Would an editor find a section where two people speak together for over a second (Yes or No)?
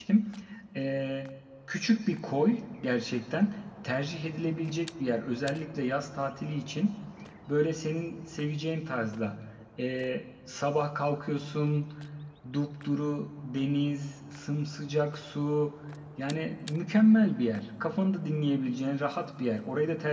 No